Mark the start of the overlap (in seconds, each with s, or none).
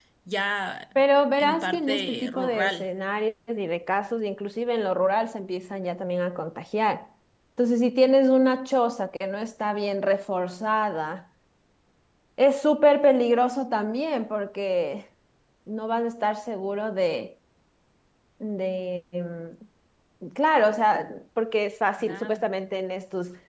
1.3 s